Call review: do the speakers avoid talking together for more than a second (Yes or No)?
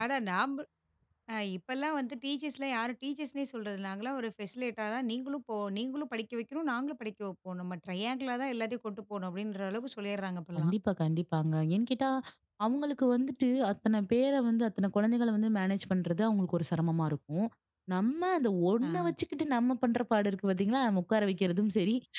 Yes